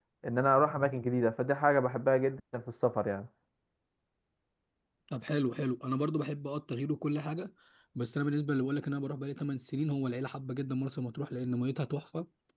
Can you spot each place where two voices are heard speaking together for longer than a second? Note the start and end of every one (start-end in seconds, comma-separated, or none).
none